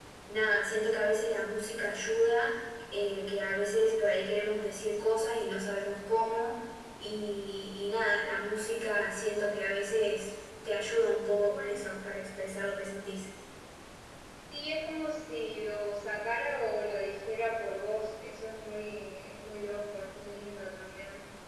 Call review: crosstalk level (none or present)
none